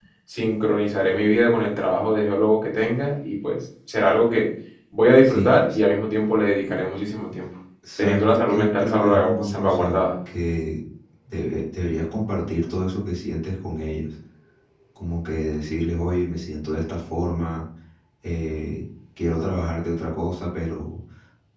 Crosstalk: present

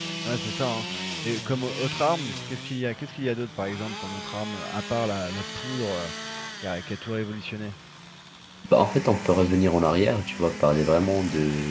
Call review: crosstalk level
none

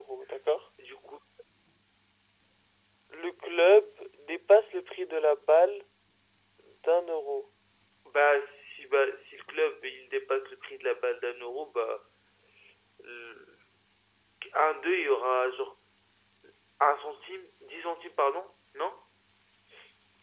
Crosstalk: none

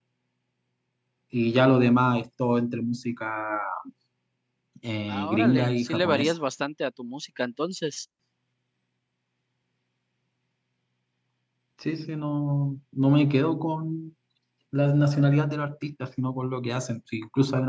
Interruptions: present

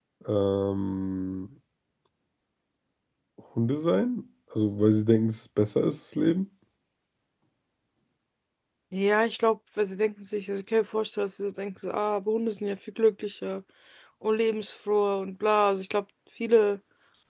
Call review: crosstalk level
none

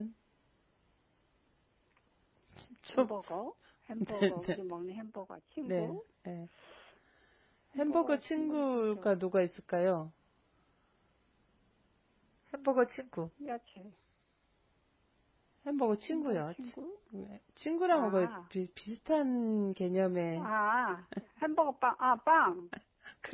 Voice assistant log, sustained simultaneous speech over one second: present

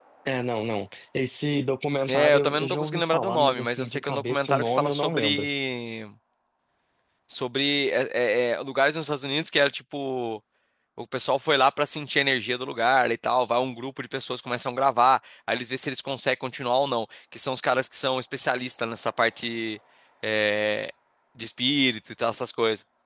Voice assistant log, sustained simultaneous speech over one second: present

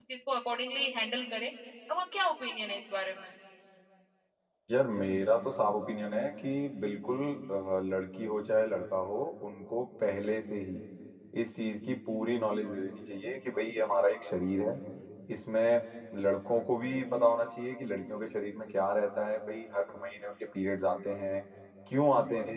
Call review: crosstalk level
none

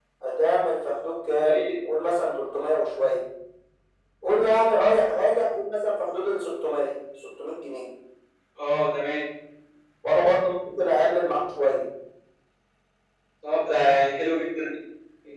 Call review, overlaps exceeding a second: none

